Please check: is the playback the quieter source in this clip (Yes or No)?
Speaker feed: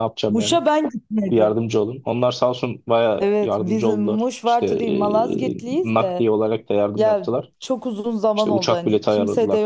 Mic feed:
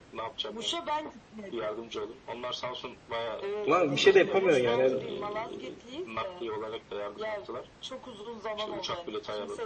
Yes